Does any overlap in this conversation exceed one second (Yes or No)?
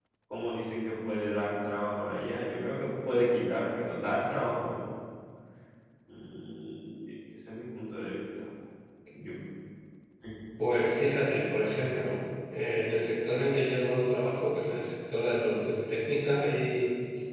No